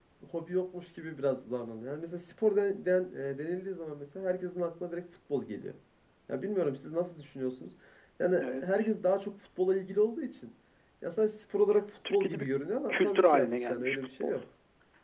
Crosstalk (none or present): present